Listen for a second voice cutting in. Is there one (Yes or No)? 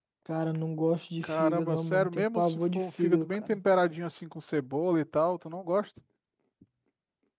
Yes